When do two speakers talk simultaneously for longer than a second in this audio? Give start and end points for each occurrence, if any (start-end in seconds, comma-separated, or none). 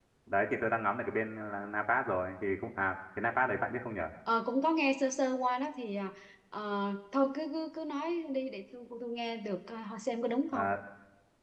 none